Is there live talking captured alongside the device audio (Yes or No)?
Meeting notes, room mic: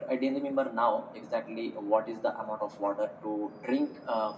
No